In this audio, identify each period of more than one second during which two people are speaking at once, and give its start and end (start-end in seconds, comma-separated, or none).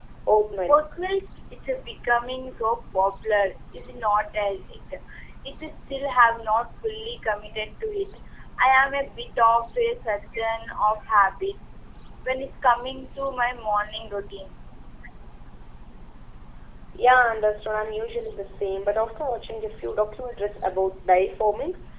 none